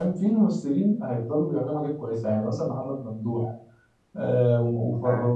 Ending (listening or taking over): listening